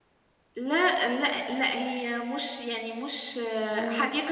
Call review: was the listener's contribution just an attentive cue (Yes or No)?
Yes